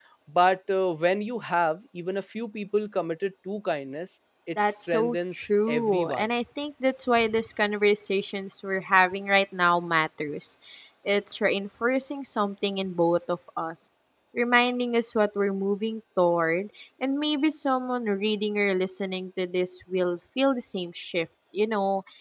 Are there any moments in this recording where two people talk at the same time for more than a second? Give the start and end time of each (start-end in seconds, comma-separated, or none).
4.7-6.2